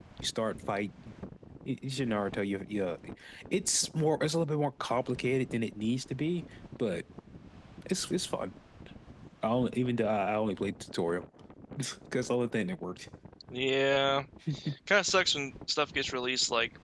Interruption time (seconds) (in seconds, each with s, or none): none